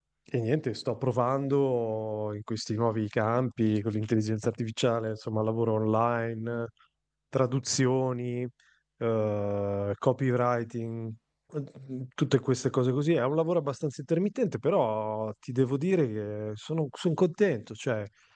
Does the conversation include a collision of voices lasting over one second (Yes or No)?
No